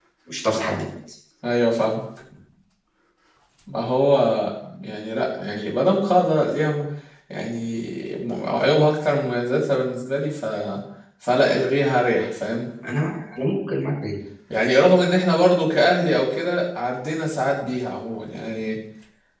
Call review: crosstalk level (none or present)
none